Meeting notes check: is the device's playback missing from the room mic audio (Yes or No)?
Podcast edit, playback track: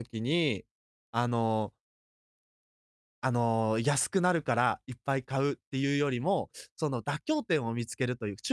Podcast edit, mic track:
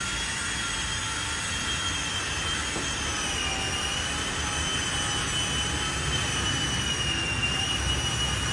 Yes